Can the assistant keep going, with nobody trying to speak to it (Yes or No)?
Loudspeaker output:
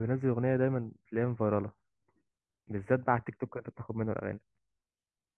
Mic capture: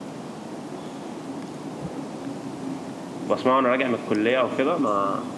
No